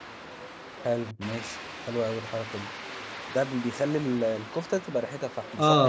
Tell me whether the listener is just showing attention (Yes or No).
No